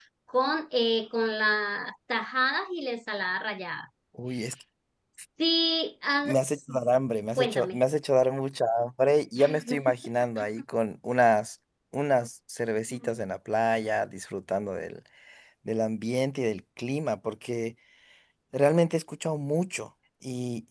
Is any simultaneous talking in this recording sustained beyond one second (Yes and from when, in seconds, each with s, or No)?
No